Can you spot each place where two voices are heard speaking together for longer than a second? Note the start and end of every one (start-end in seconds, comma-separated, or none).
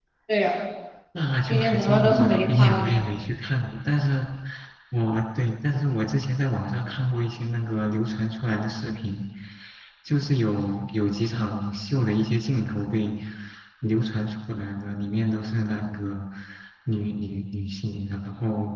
1.5-3.0